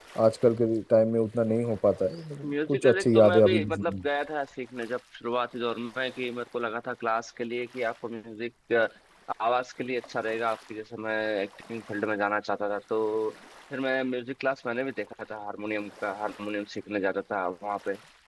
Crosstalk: present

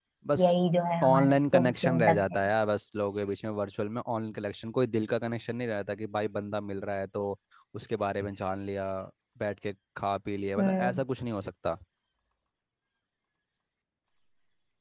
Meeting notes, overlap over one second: present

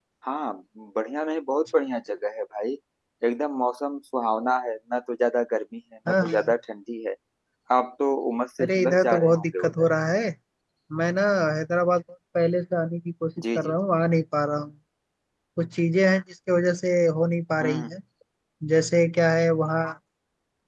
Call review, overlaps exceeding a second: present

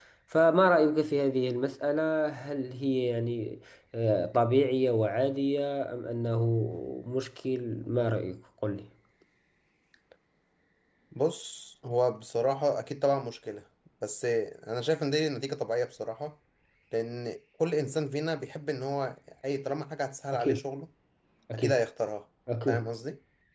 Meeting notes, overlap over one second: none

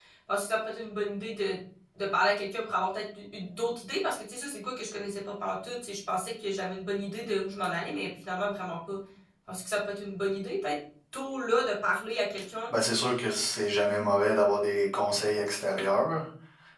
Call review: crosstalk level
none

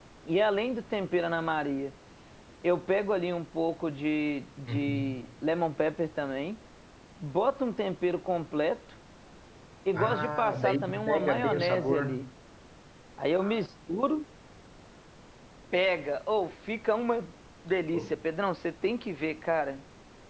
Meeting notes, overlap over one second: present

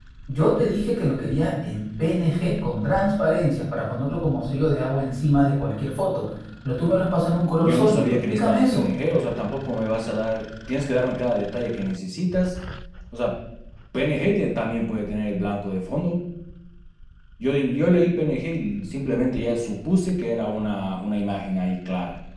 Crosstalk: present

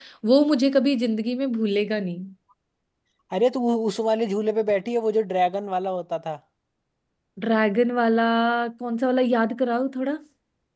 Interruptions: none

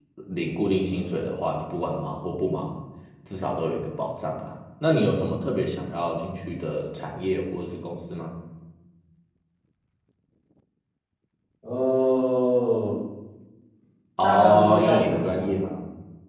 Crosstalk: present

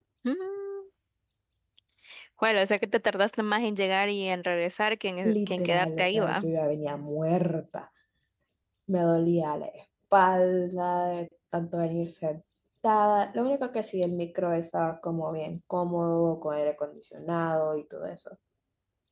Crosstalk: present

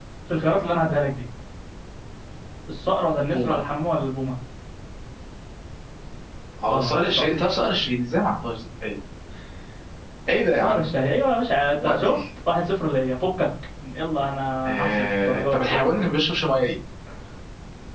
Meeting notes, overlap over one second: present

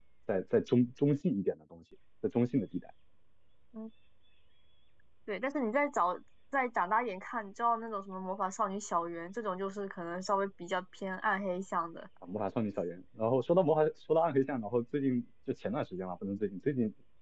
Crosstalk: none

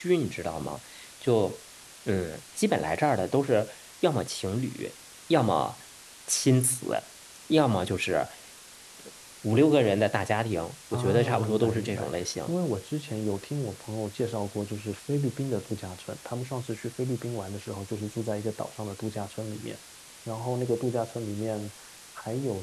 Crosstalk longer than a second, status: present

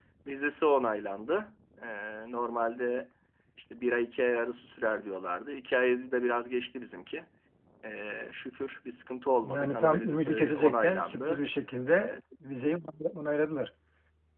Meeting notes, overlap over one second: present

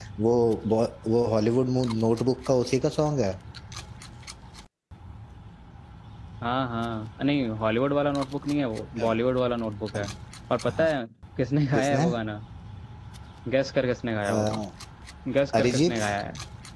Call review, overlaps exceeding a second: none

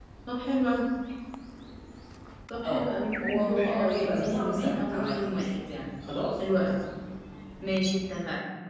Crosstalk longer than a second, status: present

